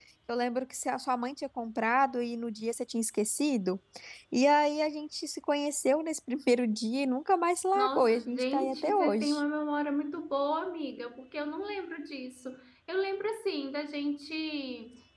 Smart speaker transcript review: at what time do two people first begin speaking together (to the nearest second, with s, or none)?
8 s